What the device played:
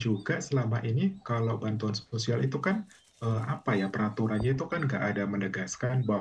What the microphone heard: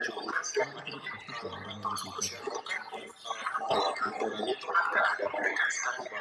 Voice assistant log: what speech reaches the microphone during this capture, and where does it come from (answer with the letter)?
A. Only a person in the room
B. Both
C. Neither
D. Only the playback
B